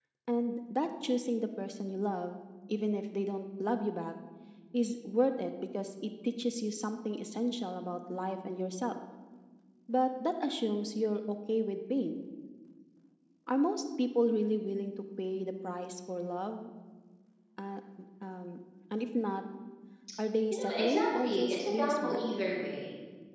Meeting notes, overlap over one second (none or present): present